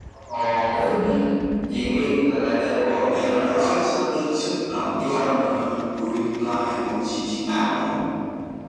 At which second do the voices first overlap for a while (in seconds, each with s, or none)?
2.5 s